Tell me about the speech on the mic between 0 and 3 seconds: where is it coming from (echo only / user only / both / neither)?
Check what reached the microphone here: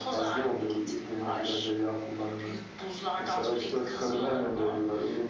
echo only